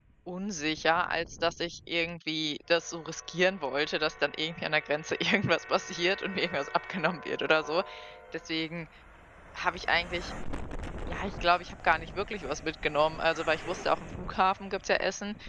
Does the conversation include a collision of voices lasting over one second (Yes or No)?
No